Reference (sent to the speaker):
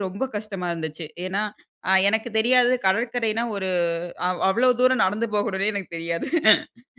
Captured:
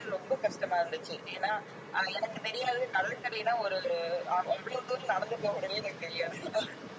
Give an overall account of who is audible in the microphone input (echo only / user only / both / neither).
echo only